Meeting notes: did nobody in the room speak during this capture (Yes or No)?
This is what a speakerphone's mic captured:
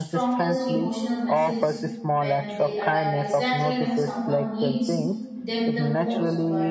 No